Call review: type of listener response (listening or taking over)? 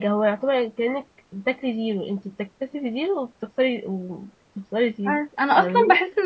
taking over